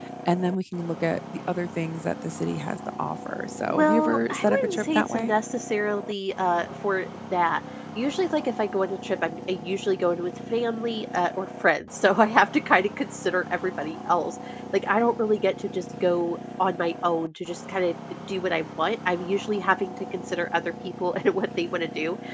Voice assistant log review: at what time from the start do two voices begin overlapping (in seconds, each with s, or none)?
3.7 s